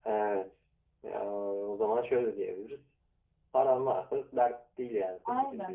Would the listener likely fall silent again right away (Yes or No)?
No